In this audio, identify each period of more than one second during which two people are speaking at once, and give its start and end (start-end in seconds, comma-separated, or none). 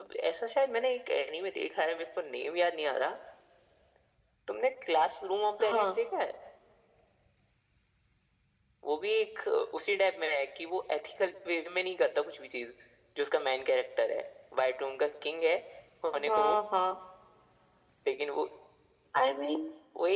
none